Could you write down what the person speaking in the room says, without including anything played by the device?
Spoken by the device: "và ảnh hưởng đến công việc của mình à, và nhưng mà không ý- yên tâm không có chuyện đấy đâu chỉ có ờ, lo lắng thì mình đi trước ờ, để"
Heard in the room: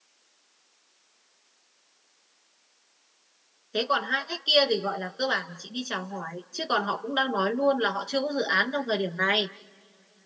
thế còn hai khách kia thì gọi là cơ bản là chị đi chào hỏi chứ còn họ cũng đang nói luôn là họ chưa có dự án trong thời điểm này

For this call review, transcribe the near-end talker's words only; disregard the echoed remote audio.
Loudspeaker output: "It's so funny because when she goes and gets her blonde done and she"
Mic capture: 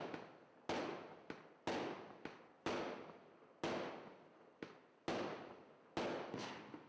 none

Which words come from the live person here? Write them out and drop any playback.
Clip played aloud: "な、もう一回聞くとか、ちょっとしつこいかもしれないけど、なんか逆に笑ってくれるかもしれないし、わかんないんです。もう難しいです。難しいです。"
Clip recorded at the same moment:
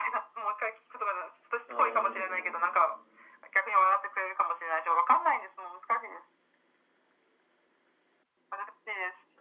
あー

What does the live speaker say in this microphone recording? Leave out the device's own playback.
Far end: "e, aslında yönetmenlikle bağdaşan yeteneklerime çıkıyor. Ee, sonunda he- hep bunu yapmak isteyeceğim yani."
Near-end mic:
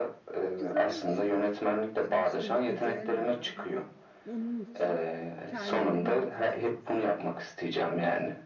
Güzel bir şey. Sonuçta bir idealim var ve o onun için kendine bir rota çizmişsin.

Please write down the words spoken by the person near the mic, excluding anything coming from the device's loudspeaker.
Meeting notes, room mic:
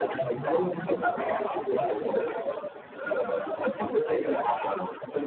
none

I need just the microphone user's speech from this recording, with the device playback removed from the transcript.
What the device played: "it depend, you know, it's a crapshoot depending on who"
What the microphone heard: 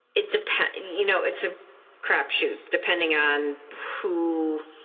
none

